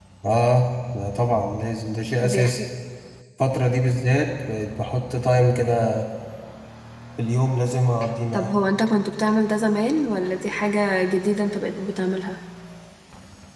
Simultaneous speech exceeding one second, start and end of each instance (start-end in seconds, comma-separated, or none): none